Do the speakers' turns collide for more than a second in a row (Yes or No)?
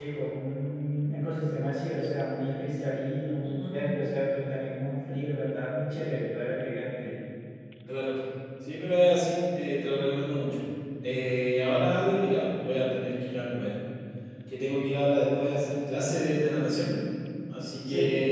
No